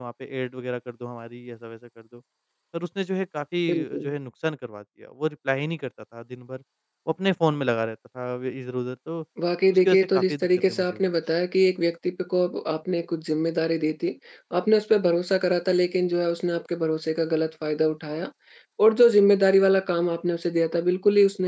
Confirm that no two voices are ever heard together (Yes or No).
No